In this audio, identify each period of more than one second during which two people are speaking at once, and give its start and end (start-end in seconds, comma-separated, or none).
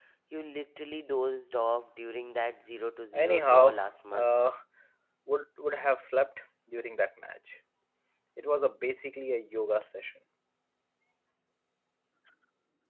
3.1-4.3